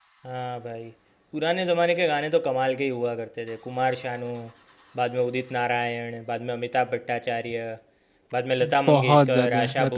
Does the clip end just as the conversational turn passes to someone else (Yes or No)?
Yes